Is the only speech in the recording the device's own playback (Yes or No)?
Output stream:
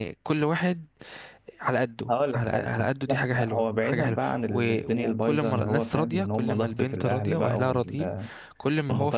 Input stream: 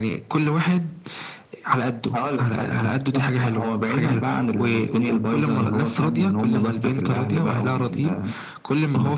Yes